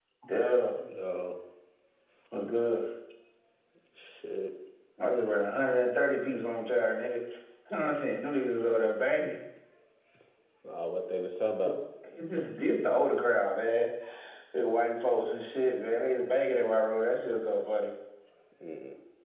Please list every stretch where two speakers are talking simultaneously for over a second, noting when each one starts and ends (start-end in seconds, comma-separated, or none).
none